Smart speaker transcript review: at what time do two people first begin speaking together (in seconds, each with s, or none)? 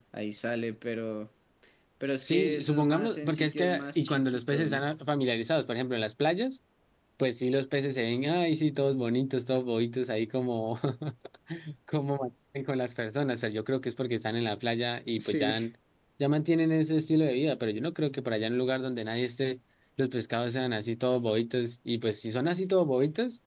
2.2 s